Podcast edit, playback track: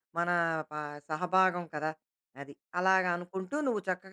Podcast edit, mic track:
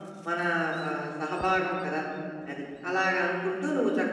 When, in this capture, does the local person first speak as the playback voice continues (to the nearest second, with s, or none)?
none